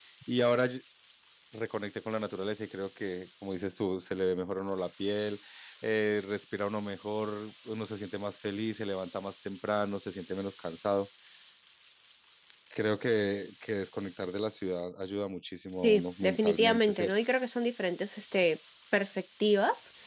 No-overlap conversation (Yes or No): No